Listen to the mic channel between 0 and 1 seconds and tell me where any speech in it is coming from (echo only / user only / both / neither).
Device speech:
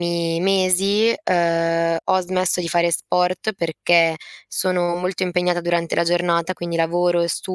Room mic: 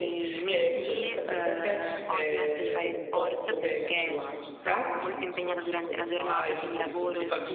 both